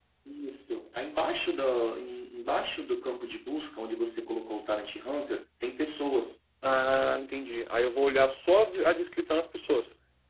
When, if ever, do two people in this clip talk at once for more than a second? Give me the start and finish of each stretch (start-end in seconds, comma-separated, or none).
none